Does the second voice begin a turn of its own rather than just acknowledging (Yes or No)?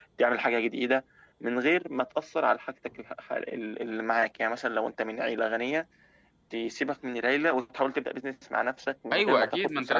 Yes